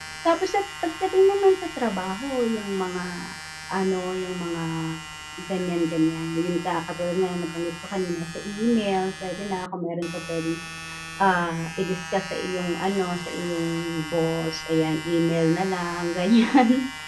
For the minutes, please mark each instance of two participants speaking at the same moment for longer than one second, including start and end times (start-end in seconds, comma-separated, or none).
none